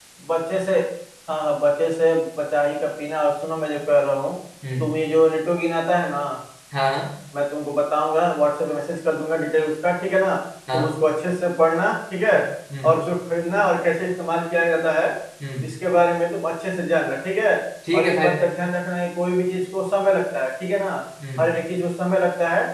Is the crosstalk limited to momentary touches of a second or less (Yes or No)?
Yes